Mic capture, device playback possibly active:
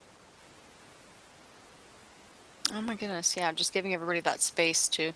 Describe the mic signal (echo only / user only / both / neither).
user only